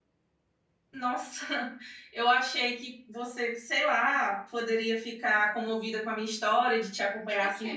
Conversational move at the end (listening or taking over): taking over